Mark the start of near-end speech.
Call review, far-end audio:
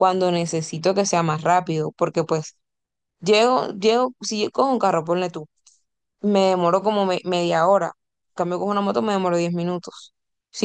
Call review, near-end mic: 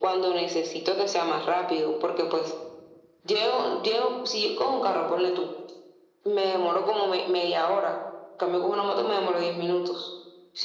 none

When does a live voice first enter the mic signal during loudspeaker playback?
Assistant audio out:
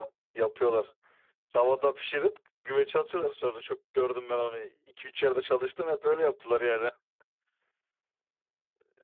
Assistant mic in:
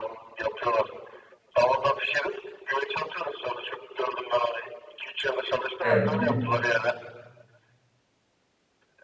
6 s

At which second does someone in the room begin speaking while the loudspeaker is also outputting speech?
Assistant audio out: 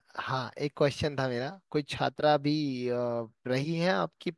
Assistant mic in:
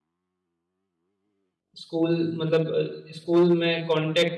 2 s

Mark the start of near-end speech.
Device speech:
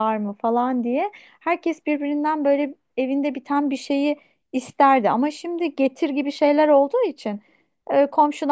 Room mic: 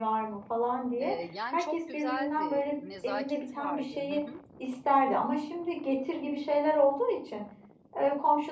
1 s

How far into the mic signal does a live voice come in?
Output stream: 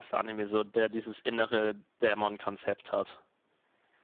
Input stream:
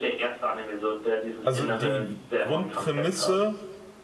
1 s

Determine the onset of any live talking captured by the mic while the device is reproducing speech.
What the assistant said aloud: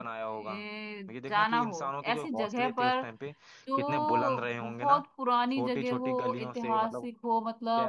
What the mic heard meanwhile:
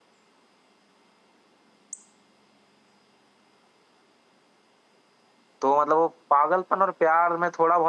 6 s

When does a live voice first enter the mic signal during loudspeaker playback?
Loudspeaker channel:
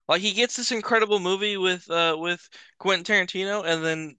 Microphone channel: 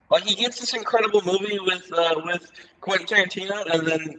none

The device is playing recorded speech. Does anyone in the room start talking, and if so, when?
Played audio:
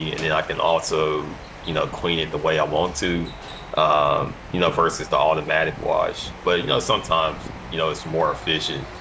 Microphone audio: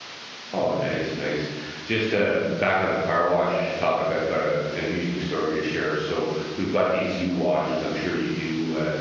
1 s

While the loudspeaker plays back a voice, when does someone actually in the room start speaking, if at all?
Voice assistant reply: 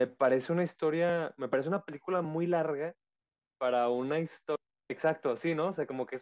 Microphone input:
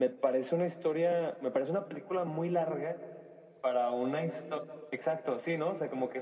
none

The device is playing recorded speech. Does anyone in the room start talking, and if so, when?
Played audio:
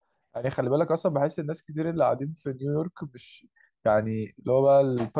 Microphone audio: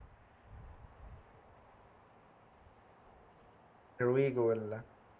4 s

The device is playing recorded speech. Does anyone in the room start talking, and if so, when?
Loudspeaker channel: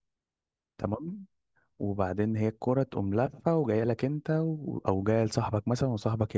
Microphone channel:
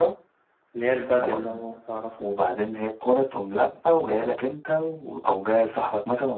1 s

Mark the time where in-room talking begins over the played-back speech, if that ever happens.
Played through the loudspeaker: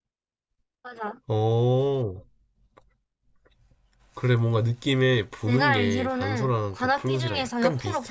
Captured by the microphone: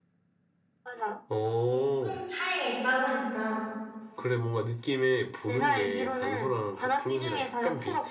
2 s

